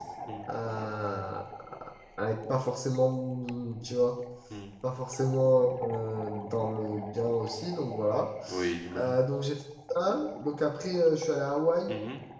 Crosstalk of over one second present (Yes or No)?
No